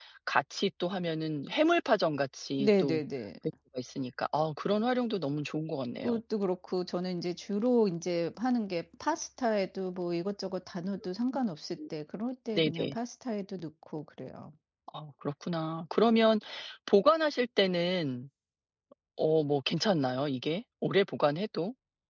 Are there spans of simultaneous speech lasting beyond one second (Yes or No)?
No